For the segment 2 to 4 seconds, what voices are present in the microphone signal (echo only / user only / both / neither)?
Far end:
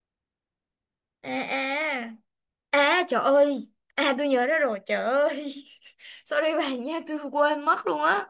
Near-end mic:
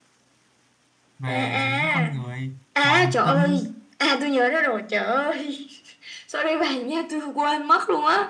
both